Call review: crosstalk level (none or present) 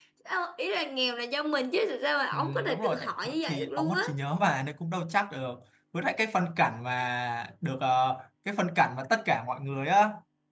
present